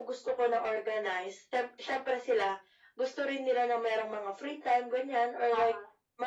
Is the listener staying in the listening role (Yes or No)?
Yes